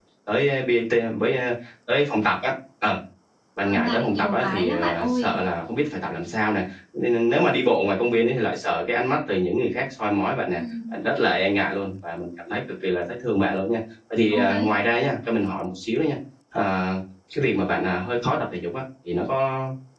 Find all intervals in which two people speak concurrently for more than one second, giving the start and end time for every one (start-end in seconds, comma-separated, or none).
3.6-5.3